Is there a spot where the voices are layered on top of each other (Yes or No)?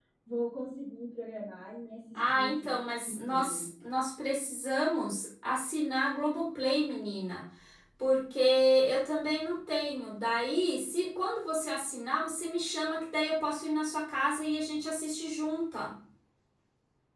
Yes